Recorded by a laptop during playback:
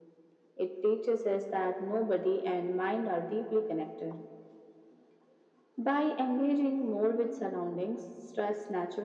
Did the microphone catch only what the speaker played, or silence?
Yes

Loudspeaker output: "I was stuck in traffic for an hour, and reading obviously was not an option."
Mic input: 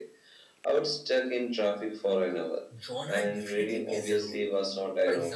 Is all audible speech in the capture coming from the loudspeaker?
No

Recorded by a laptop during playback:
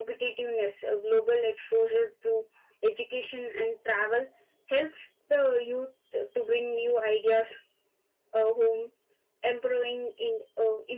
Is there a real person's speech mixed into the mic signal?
No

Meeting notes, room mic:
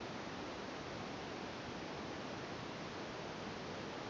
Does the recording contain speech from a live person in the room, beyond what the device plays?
No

